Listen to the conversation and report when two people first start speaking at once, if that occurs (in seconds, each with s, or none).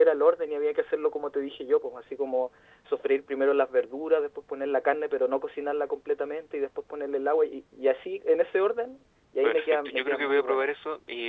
9.4 s